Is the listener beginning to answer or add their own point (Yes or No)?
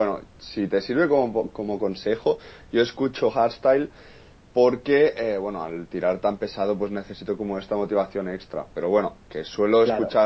No